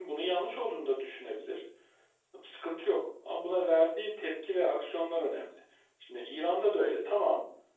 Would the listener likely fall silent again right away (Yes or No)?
Yes